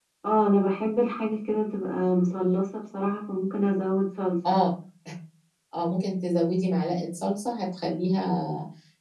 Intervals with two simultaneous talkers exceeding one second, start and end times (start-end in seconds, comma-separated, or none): none